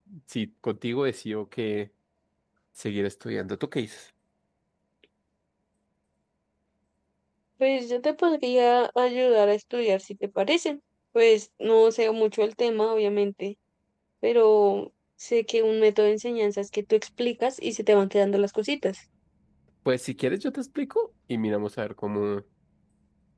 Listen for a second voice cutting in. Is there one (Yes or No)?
No